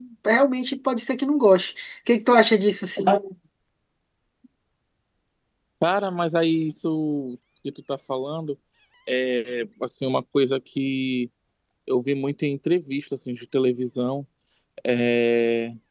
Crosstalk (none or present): none